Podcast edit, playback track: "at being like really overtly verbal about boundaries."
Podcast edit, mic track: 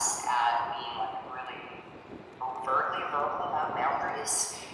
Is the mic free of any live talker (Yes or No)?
Yes